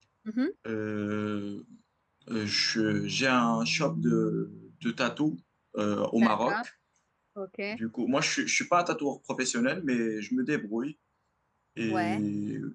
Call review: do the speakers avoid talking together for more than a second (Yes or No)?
Yes